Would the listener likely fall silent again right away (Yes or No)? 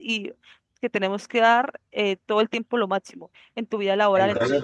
No